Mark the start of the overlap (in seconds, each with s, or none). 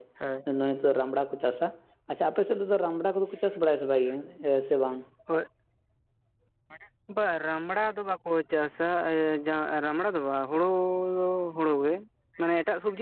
none